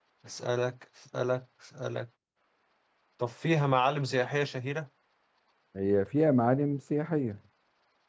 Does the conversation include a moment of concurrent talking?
No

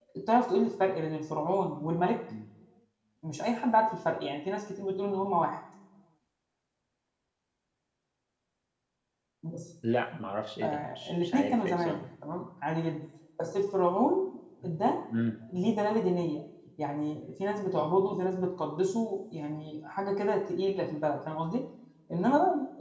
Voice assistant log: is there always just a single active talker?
No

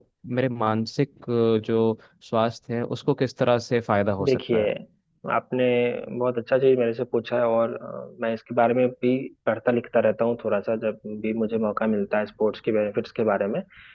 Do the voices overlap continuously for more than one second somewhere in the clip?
No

